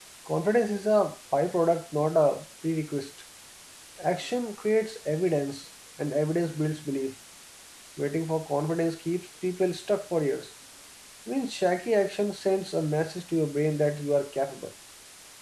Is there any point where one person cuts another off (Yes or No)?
No